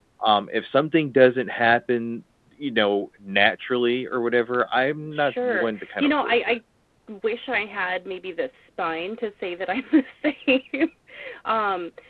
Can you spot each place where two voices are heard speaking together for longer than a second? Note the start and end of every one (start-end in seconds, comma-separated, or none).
5.1-6.6